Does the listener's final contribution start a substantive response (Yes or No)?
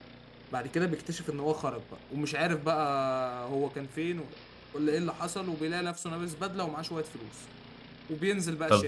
Yes